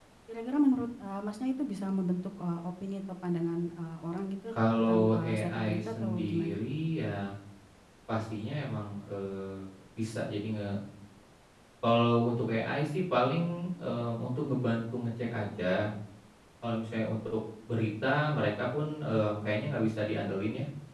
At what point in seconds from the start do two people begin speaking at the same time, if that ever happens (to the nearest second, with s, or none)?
5 s